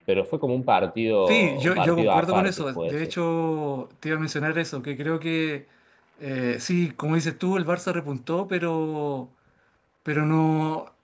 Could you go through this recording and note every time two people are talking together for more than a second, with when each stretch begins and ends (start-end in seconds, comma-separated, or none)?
1.3-2.9